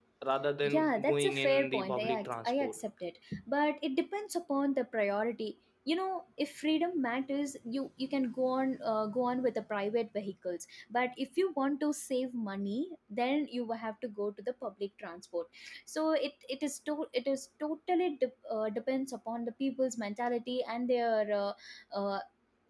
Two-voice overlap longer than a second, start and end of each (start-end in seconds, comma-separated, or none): 0.6-2.8